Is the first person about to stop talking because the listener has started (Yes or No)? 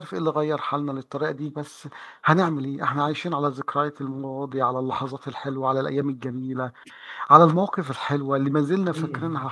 No